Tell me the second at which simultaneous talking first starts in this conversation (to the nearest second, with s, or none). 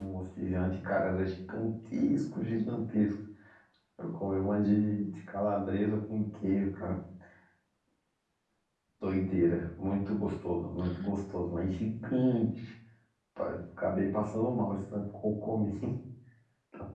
none